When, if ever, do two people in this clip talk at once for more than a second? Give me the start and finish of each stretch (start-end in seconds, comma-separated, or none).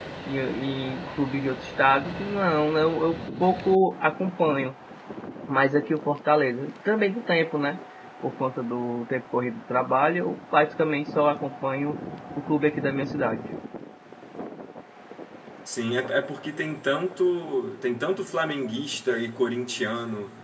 none